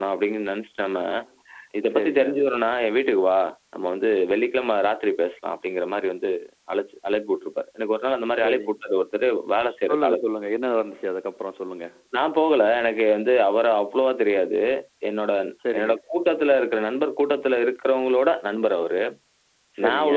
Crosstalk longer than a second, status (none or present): none